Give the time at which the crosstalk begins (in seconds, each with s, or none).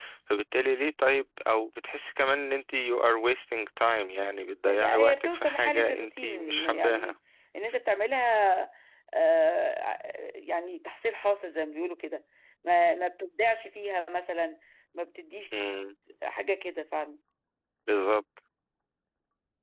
4.7 s